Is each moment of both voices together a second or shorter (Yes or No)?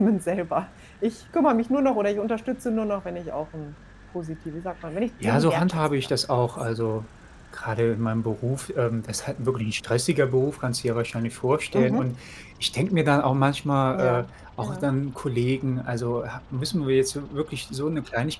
No